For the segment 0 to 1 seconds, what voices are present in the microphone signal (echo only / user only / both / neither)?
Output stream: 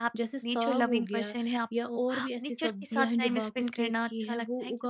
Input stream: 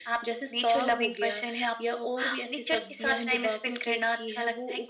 echo only